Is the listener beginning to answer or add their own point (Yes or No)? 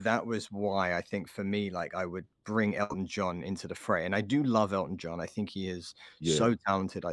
No